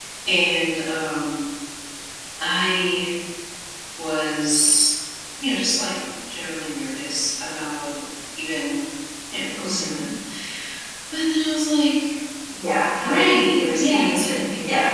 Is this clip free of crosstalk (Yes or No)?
No